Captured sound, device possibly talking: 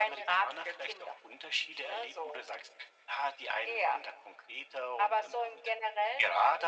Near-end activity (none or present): none